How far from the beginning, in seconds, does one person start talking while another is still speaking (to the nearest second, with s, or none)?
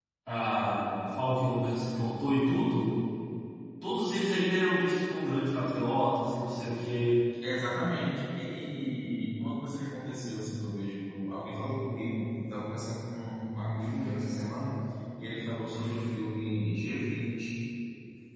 none